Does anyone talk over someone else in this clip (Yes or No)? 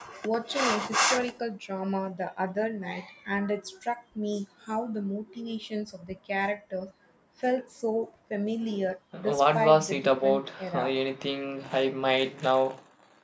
Yes